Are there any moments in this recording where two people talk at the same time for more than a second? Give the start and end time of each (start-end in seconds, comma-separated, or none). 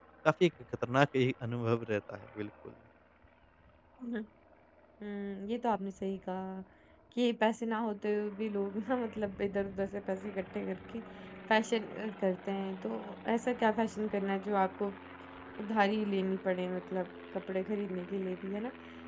none